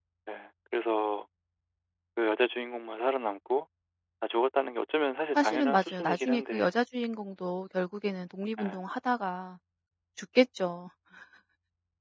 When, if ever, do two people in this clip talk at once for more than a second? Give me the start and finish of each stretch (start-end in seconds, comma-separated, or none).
5.3-6.7